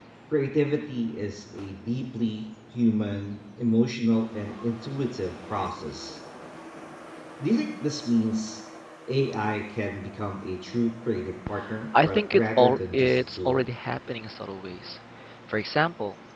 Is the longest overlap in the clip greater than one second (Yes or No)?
Yes